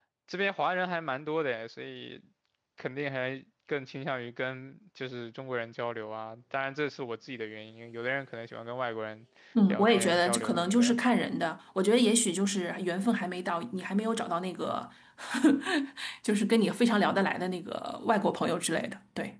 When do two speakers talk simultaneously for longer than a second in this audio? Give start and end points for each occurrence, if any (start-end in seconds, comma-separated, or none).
9.7-11.0